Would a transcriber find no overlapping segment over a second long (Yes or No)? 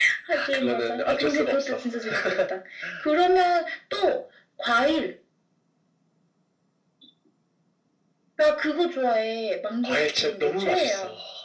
No